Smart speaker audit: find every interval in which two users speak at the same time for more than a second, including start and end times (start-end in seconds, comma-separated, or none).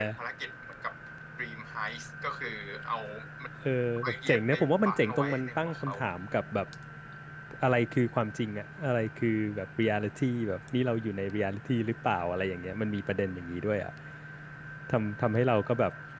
4.0-5.9